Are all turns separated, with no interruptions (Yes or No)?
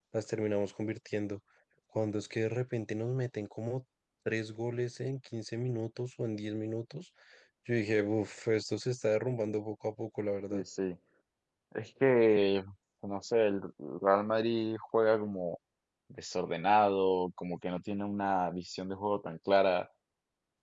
Yes